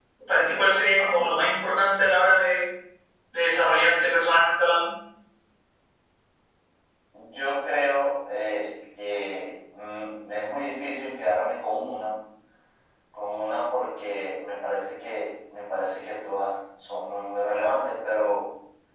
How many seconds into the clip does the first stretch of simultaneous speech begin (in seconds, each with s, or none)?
none